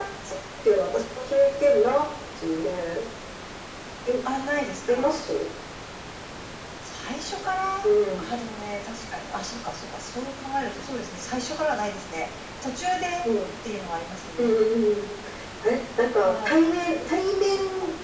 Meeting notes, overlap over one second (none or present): none